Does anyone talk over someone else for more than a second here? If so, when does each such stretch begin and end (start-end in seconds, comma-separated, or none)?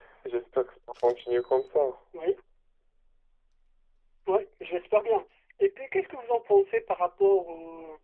none